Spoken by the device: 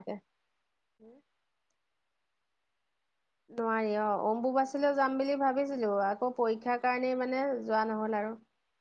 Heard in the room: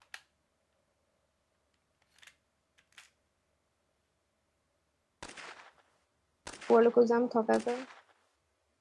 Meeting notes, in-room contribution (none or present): present